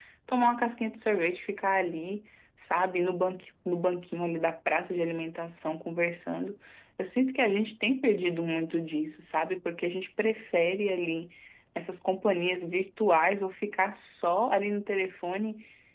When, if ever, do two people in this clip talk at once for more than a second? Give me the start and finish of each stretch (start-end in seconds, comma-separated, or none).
none